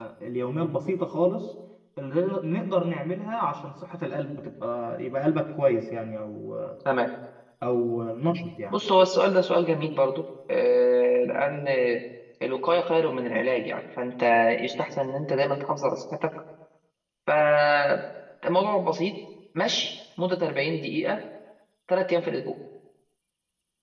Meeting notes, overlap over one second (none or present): none